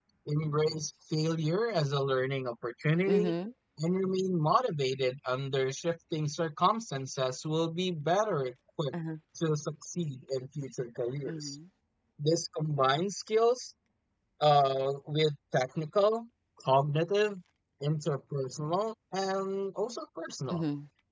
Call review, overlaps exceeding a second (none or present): none